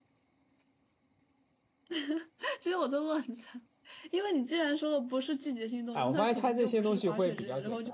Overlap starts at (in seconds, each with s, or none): 6.0 s